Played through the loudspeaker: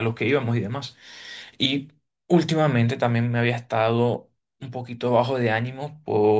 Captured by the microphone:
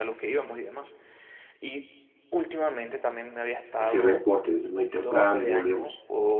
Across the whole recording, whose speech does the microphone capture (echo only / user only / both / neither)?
both